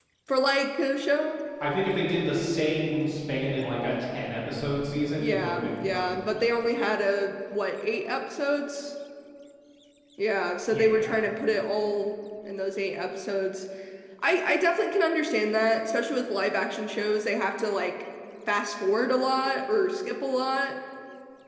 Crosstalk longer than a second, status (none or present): present